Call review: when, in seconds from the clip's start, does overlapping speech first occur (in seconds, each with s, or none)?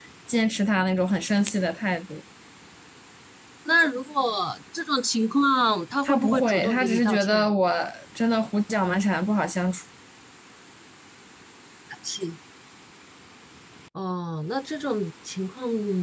6.0 s